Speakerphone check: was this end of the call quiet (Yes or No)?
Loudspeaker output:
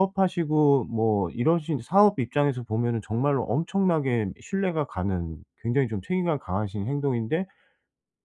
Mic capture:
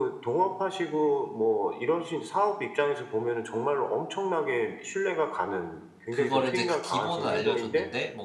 No